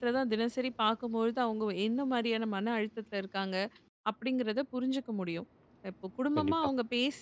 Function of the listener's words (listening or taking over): listening